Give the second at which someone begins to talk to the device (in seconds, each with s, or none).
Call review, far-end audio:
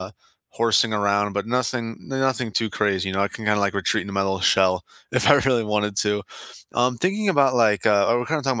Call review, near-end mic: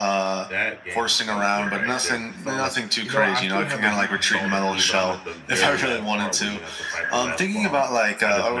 0.5 s